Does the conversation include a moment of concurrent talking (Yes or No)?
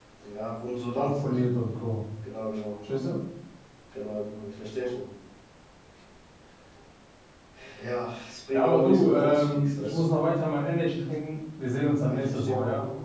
Yes